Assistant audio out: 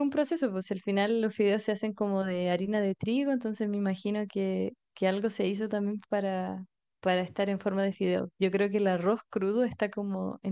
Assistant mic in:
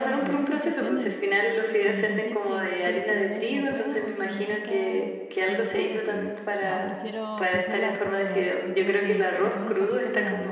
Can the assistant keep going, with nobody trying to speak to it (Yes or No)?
No